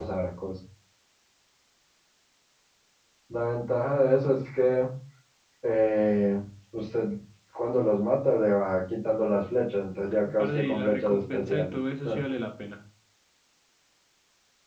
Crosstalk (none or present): present